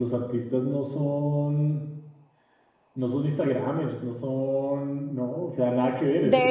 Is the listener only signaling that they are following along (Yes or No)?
No